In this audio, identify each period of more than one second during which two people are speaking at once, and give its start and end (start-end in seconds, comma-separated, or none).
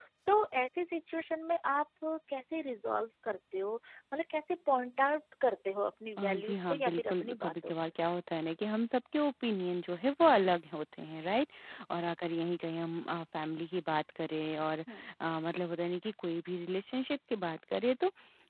6.2-7.9